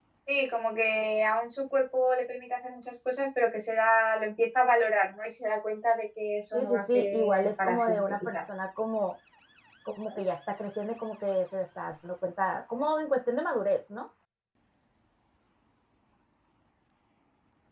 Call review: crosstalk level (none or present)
present